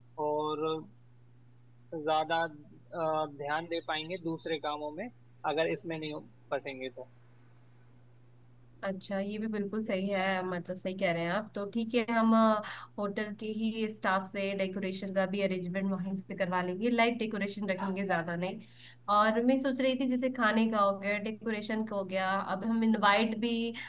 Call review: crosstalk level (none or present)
none